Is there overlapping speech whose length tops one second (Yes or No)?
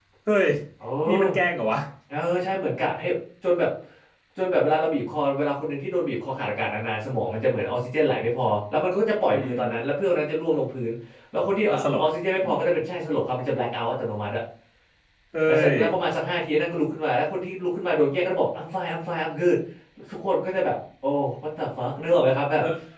No